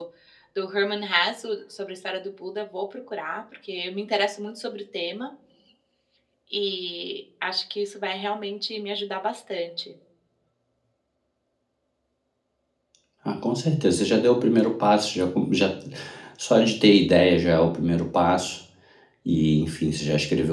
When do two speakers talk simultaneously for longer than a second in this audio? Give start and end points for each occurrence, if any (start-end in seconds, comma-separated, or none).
none